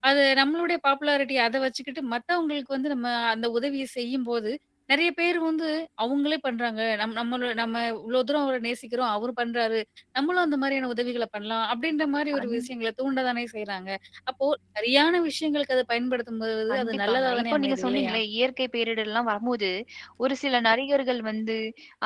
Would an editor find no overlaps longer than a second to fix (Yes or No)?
No